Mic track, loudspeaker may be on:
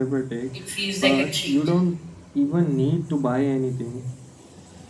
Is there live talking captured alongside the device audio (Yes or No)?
Yes